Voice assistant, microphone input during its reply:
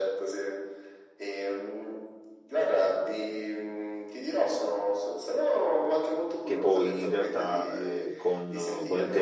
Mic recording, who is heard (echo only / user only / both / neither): both